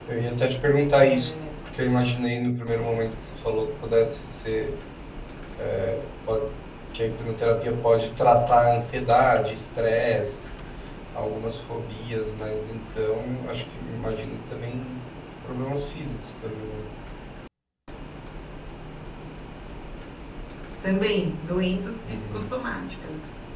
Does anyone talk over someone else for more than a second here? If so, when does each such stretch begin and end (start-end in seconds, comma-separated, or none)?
none